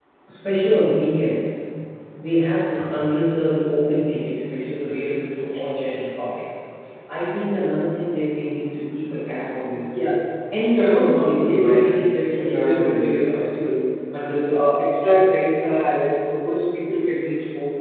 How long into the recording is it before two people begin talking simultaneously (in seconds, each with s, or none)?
10.7 s